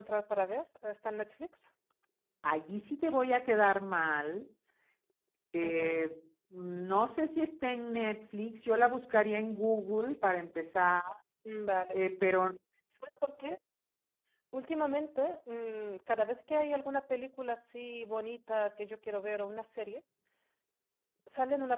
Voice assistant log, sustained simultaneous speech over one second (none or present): none